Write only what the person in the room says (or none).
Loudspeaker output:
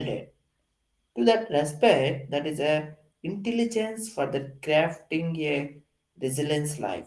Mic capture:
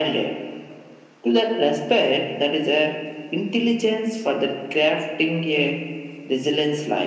none